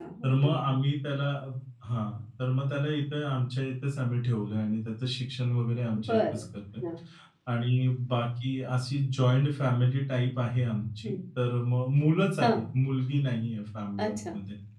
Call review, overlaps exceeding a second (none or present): none